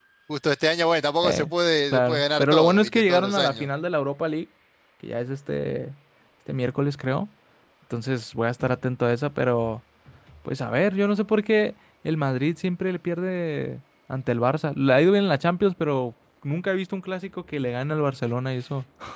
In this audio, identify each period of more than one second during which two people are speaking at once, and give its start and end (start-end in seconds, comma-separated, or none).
1.9-3.7